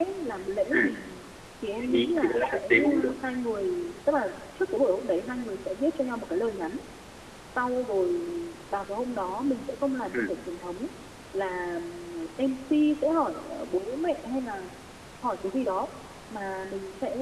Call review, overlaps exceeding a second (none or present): present